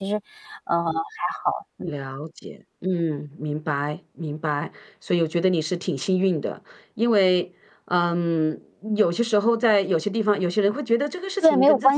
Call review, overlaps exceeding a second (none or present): none